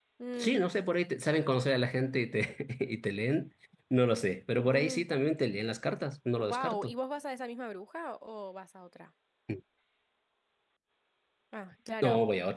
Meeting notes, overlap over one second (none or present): none